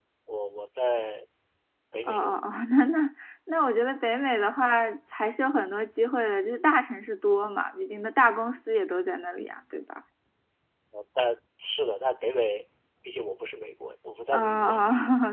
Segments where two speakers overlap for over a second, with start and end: none

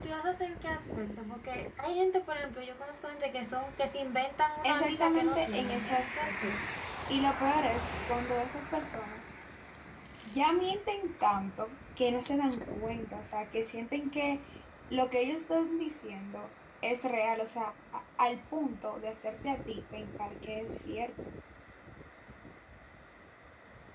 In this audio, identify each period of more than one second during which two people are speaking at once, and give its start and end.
4.6-6.6

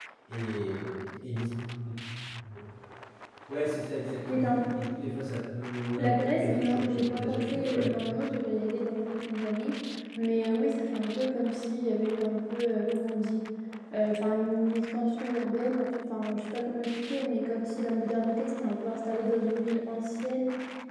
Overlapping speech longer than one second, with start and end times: 6.0-8.0

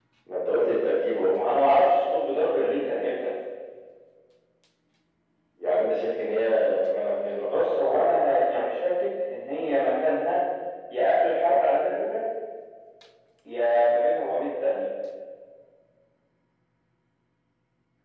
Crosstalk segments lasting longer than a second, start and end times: none

